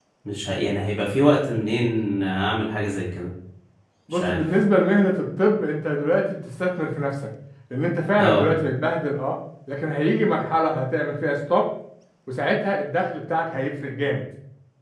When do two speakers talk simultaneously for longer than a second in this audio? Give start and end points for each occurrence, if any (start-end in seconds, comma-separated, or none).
none